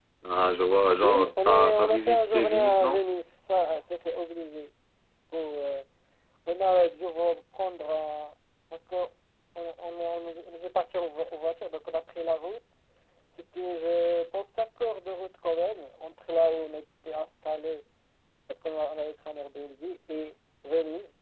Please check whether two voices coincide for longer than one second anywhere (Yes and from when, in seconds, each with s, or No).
Yes, from 1.0 s